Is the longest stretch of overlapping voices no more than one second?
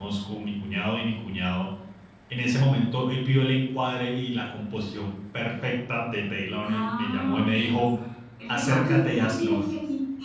No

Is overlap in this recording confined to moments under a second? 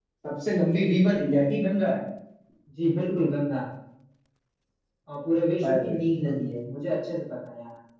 Yes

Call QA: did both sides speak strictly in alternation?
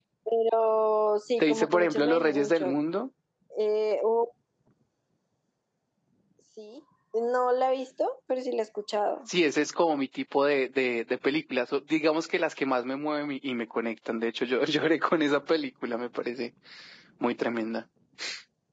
No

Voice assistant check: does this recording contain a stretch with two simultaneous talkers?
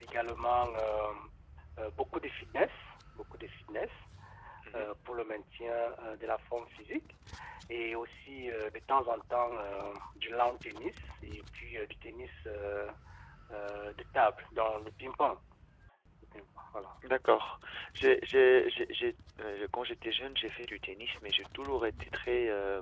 No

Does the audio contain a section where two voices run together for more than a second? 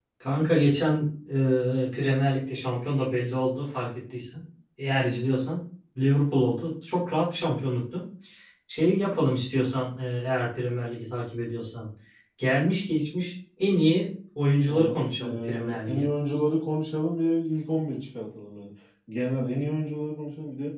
Yes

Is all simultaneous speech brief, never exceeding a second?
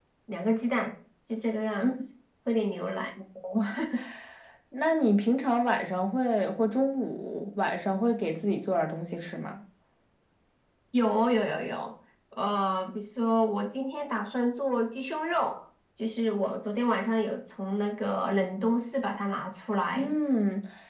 Yes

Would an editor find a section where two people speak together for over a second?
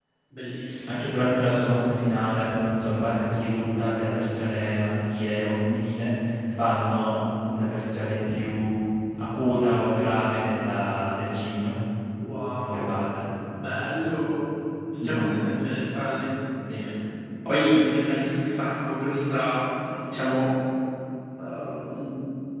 No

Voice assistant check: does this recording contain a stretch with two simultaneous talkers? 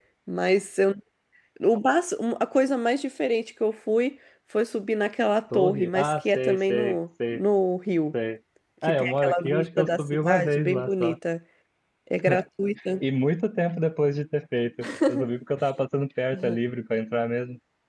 Yes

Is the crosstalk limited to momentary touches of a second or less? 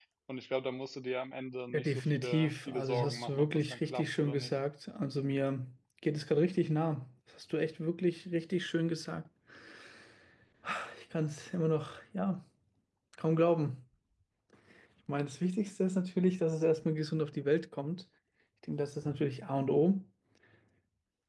No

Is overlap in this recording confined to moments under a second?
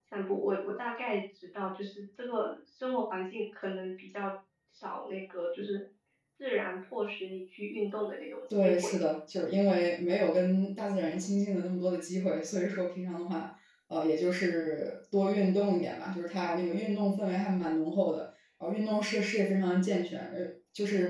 Yes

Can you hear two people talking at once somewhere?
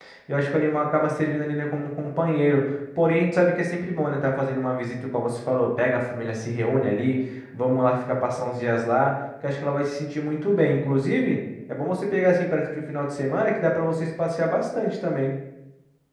No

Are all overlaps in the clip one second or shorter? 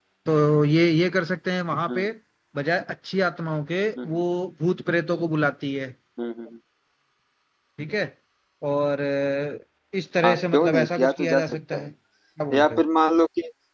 No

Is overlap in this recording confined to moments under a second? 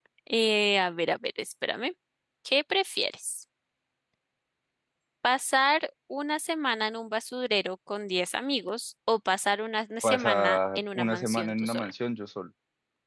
No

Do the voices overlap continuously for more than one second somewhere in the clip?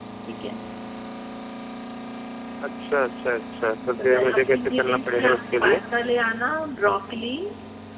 Yes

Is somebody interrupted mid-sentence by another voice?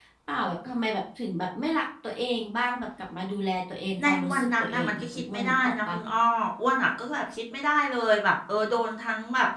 Yes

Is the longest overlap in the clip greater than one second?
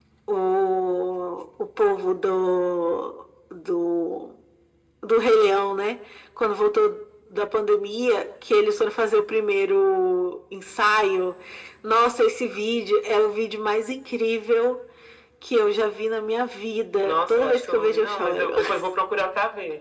Yes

